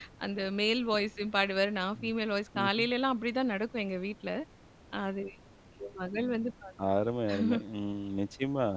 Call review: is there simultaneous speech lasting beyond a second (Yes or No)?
No